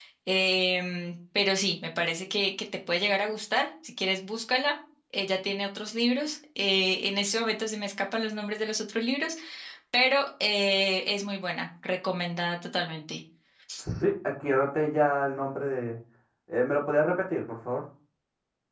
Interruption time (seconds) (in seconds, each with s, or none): none